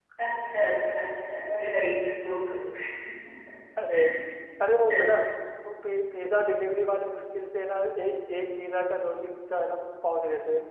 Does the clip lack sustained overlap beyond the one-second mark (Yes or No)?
Yes